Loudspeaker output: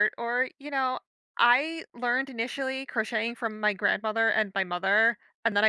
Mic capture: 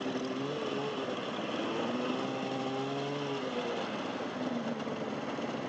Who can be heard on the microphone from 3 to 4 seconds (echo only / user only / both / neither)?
neither